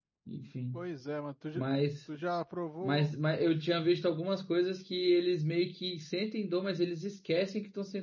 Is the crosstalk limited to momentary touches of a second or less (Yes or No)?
Yes